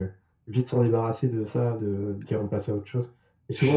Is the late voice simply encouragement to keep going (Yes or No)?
Yes